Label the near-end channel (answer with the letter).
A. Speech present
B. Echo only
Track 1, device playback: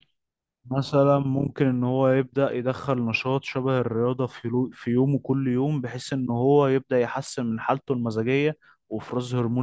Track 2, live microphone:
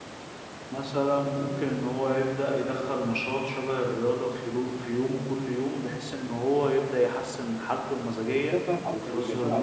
A